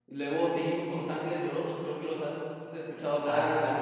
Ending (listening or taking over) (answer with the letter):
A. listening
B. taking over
B